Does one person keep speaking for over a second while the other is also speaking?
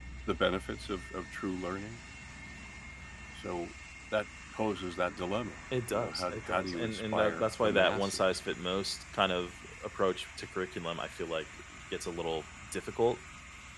Yes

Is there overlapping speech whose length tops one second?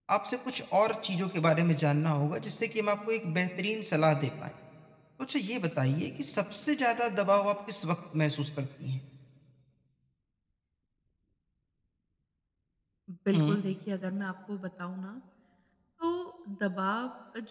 No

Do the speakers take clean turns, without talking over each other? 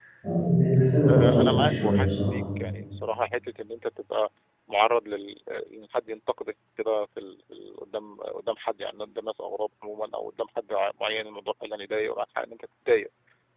No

